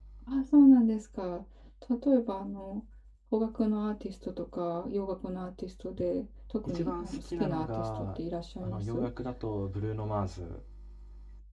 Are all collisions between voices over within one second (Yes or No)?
No